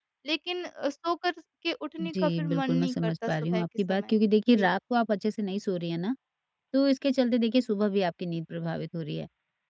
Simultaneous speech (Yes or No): Yes